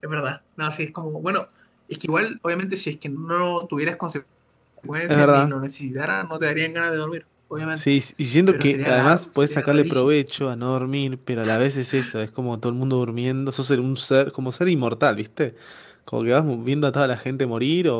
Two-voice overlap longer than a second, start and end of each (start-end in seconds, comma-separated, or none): 8.5-10.1